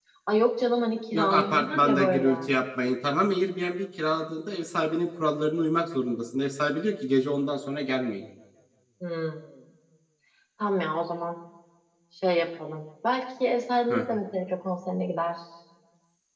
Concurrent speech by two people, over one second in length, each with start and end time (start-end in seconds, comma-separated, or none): 1.1-2.3